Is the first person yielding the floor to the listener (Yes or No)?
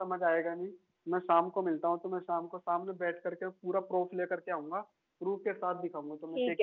Yes